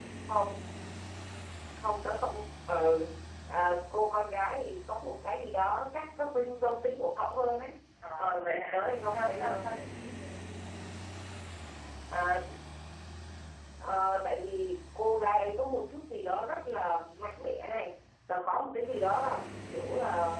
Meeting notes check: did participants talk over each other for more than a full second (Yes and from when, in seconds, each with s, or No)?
Yes, from 8.2 s